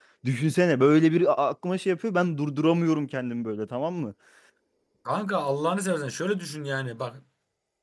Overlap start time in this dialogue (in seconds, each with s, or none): none